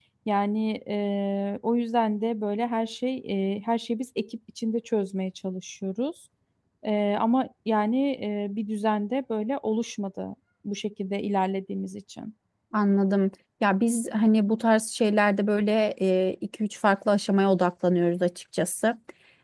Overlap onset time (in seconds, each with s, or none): none